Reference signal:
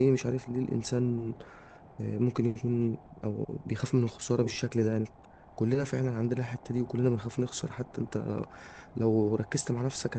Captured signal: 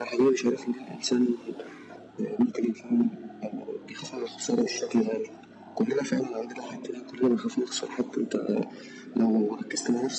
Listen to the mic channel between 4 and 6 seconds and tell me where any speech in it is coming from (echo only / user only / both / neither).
echo only